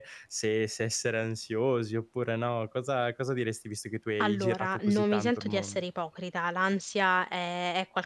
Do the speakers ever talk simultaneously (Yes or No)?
Yes